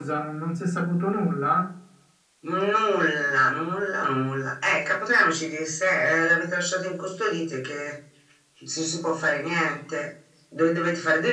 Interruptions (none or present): none